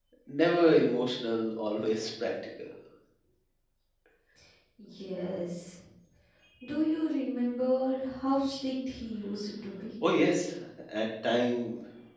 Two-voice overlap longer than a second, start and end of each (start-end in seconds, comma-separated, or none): none